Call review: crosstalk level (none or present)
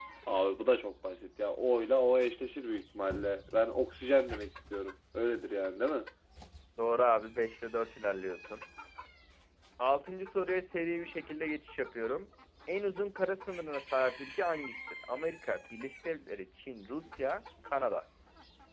none